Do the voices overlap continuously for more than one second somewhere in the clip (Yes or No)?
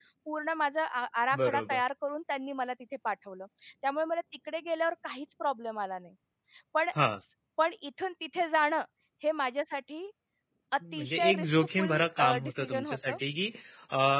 Yes